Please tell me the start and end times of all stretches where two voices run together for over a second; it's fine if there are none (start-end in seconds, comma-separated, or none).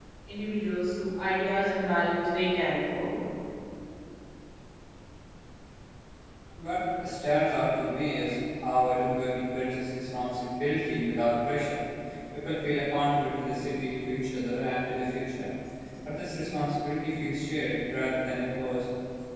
none